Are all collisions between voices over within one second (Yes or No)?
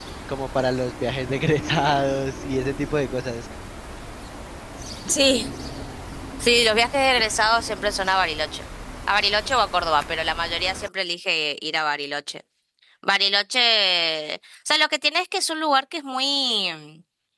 Yes